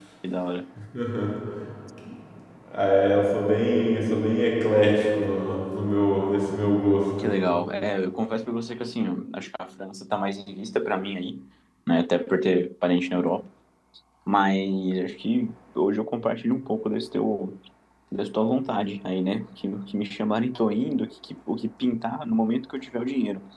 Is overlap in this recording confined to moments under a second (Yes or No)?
Yes